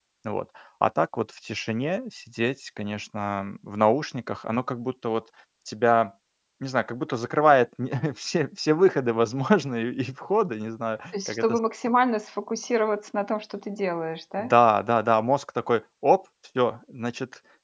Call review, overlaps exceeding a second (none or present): none